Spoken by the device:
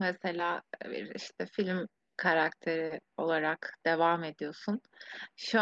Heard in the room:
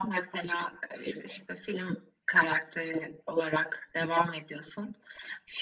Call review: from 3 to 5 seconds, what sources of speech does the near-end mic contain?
echo only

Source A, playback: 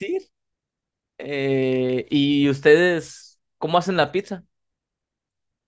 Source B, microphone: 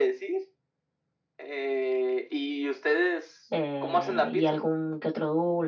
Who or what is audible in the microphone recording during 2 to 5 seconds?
both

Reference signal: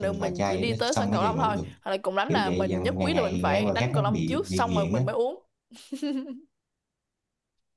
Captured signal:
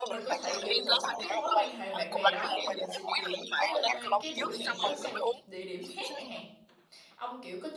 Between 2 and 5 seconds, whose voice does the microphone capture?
both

